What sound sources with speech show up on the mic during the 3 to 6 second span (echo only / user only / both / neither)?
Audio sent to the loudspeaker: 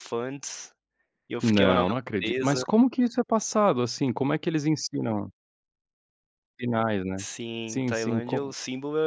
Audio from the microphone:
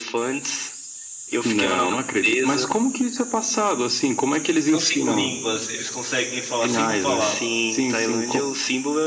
both